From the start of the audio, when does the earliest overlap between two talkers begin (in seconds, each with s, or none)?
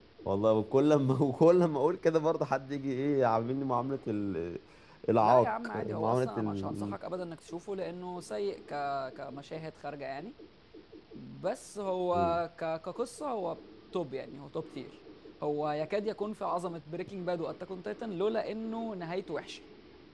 5.2 s